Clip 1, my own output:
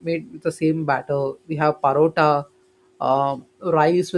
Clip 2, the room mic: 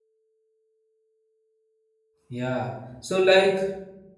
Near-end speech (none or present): present